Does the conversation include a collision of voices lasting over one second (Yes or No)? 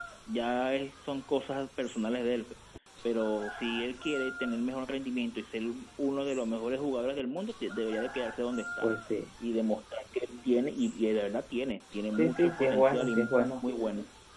Yes